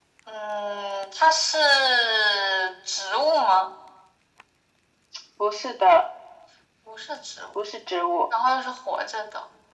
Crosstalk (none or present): none